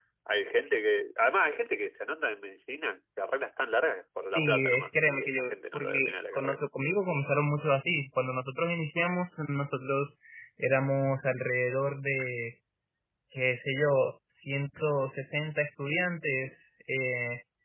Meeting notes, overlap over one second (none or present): present